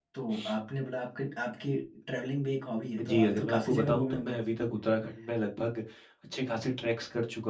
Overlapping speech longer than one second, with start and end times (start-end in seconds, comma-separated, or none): 3.1-4.4